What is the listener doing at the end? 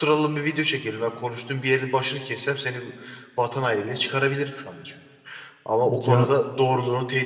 listening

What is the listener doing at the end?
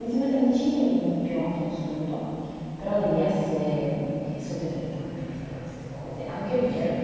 listening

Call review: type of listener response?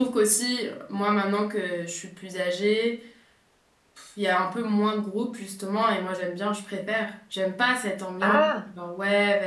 listening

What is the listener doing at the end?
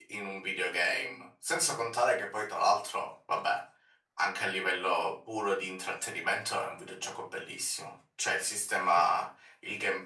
listening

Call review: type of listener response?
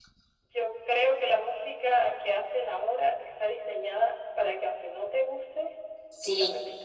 taking over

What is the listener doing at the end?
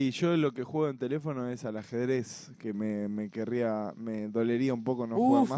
taking over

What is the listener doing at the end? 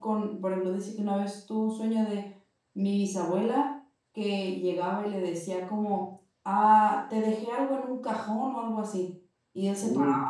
listening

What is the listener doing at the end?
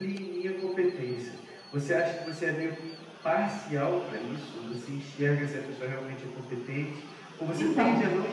listening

